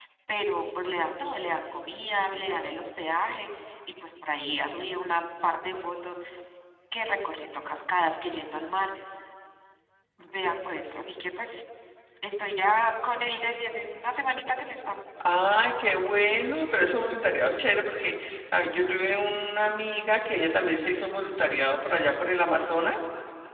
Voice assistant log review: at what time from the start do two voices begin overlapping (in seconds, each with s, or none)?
none